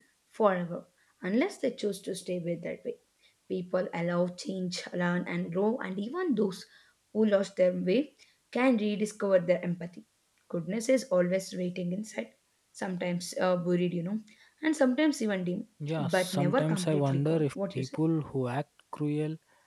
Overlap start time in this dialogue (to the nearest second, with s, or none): 16 s